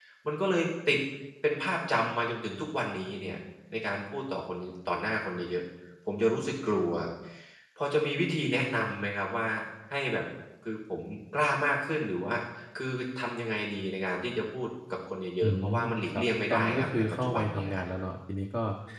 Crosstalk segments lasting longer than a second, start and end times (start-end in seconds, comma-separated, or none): 15.4-17.8